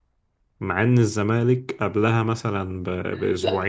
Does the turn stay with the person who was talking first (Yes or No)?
No